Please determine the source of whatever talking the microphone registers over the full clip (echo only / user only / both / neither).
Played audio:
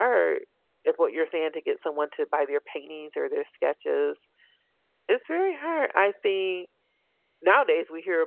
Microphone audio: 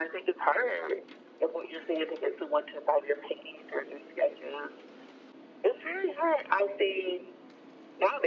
echo only